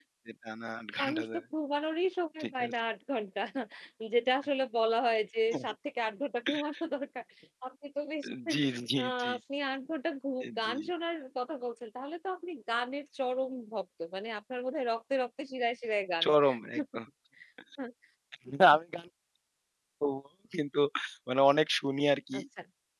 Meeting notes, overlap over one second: none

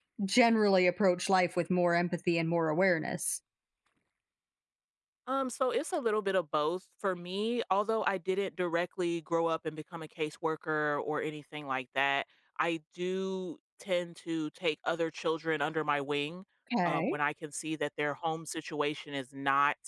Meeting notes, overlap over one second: none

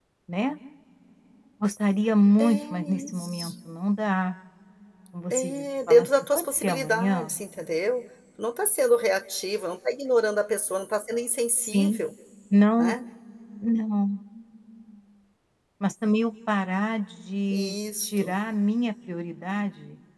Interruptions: present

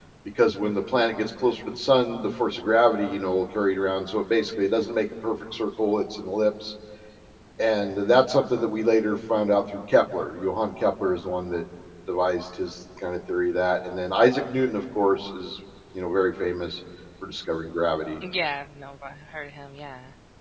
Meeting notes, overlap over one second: none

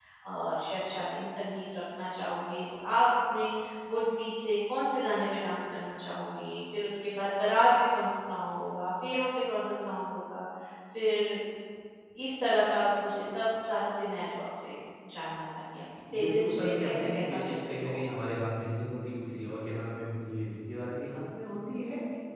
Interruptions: present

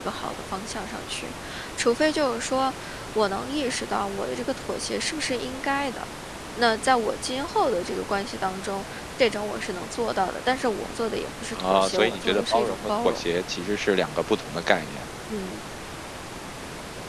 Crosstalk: present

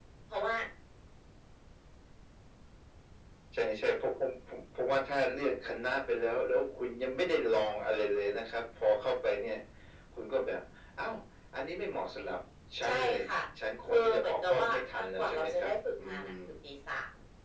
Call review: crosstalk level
present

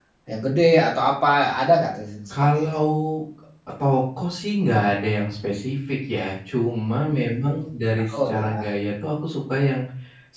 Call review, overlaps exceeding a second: none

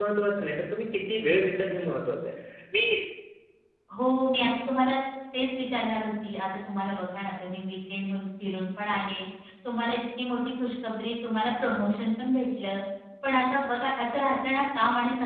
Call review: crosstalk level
none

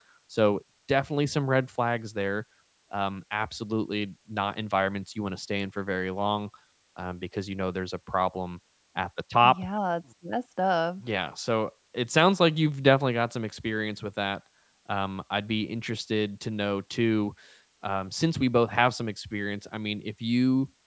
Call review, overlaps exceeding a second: none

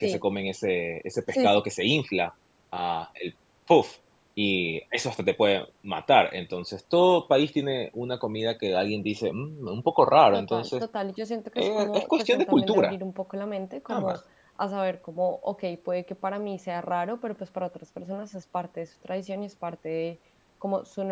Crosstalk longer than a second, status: present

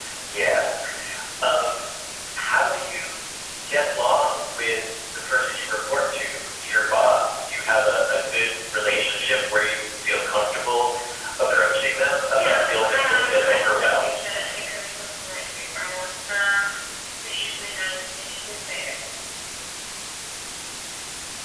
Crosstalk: present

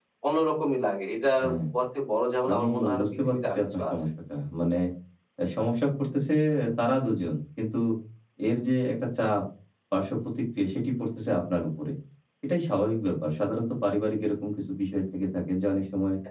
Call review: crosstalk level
present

